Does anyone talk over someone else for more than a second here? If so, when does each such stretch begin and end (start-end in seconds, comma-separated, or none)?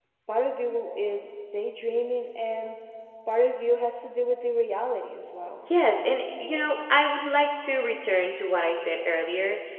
none